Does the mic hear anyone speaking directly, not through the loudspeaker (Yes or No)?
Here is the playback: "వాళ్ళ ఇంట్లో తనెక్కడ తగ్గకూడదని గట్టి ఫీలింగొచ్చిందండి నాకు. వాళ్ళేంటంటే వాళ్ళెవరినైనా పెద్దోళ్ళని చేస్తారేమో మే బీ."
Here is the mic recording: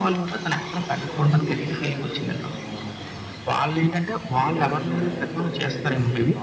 Yes